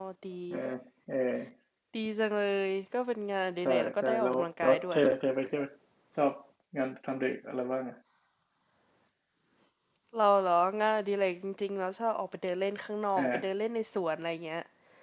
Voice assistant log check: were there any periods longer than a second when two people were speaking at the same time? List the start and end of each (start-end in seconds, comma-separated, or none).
3.6-5.0